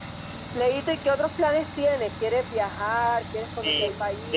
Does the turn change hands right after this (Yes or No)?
Yes